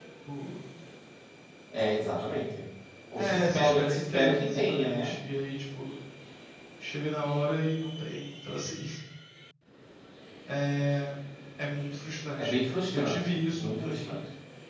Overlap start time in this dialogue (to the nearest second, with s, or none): 3 s